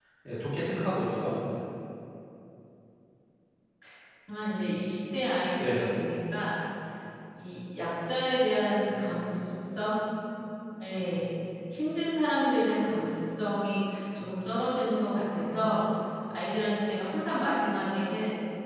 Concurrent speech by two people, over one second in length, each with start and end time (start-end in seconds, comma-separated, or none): none